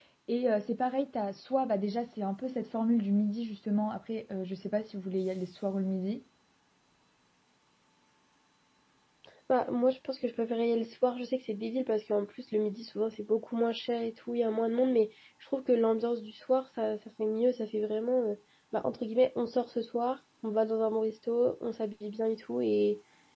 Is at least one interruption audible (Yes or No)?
No